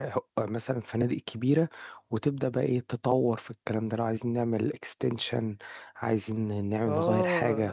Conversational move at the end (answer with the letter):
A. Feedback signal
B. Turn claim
B